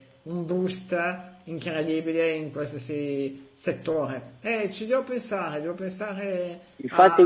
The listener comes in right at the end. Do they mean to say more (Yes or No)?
Yes